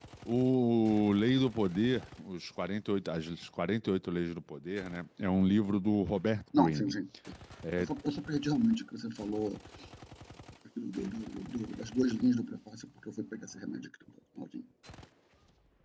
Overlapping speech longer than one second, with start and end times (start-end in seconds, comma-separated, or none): none